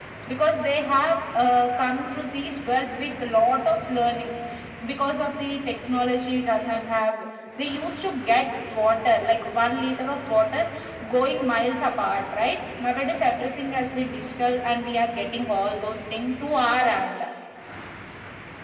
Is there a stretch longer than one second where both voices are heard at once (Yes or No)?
No